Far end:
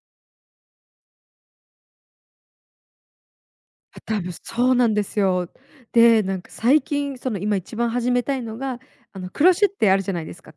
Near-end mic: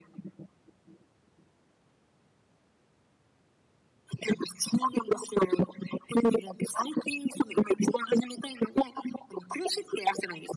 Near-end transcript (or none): none